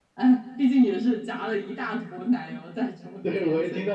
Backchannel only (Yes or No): No